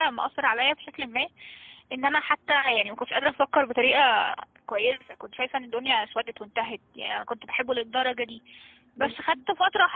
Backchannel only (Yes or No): Yes